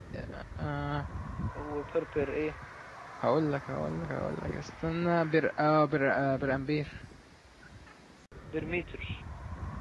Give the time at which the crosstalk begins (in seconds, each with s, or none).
none